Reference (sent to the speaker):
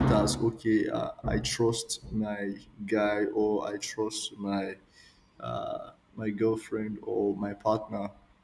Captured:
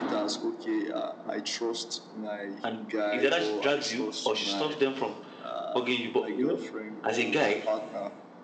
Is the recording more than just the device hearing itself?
Yes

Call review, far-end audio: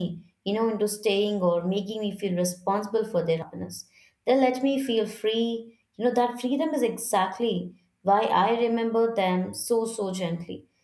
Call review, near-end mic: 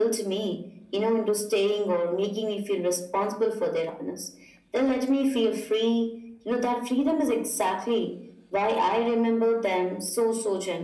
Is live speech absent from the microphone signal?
Yes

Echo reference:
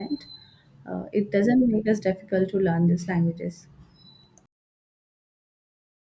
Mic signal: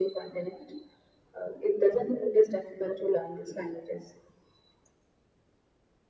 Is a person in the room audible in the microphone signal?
No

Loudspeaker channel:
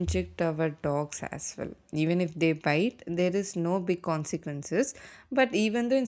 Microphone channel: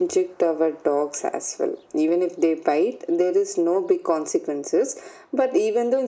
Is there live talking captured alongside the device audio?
No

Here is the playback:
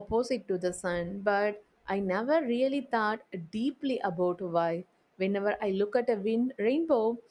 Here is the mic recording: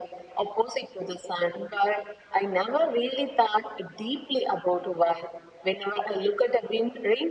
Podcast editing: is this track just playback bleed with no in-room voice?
Yes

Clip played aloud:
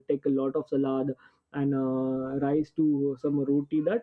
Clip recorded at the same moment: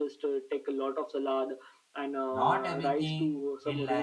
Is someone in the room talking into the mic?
Yes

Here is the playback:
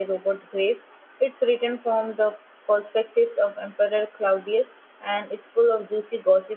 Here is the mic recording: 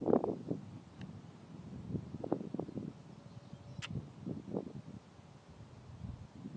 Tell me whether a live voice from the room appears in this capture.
No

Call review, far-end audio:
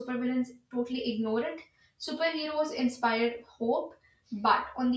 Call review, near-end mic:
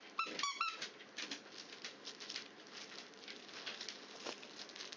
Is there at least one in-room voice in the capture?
No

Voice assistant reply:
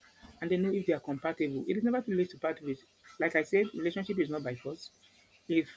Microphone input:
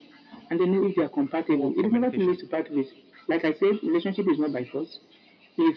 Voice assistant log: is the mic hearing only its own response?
No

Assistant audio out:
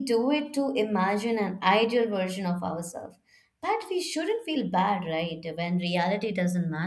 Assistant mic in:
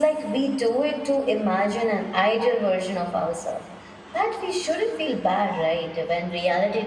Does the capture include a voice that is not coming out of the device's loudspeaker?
No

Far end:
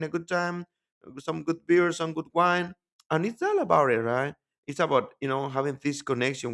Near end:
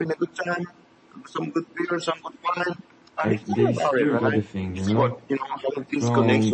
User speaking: Yes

